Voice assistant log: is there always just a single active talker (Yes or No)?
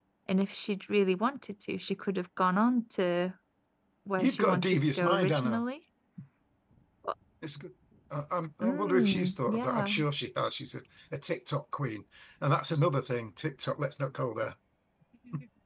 No